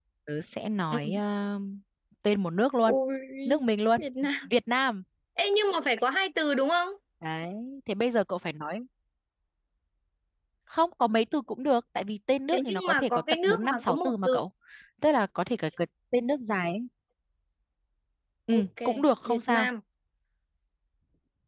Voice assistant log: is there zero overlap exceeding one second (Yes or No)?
No